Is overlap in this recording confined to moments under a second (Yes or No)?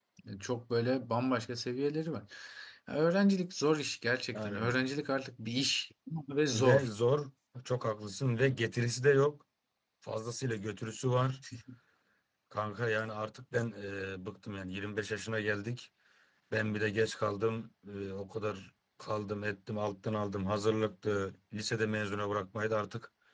Yes